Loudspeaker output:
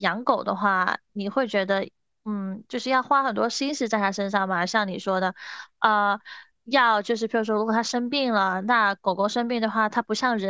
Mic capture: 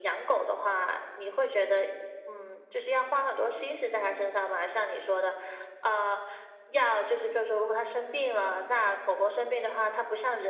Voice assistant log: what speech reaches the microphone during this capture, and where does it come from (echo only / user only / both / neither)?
echo only